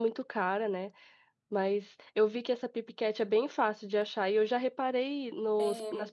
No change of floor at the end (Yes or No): Yes